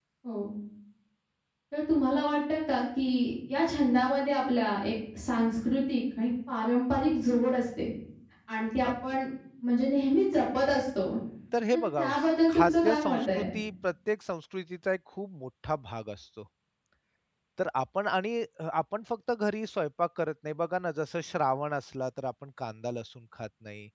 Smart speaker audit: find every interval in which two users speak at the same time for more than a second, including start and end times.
12.0-13.4

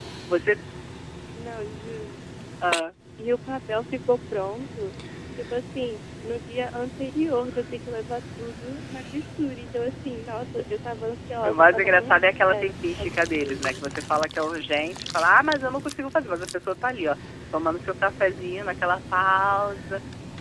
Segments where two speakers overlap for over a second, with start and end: 11.4-13.8

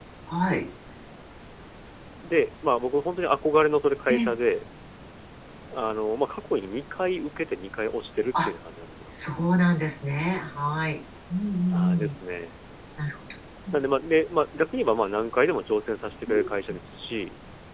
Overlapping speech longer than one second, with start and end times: none

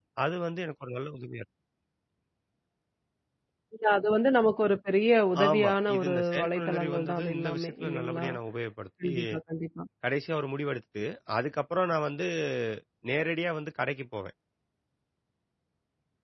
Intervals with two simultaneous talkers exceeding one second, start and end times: 5.5-8.3

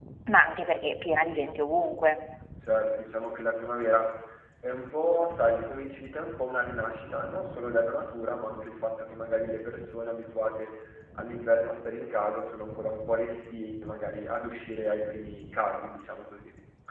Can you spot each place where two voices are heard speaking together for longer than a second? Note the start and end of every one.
none

